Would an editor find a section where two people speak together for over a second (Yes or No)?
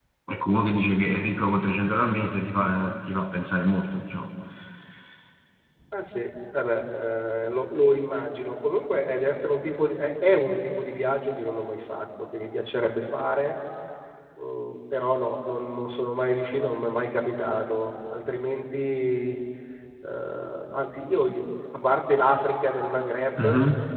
No